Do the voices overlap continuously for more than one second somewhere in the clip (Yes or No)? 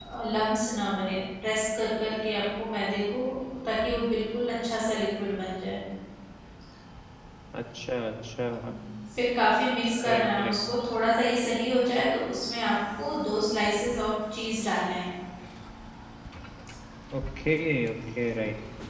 No